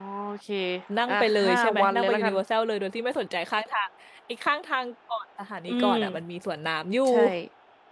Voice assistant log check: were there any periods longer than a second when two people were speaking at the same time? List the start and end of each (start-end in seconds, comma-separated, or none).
1.1-2.4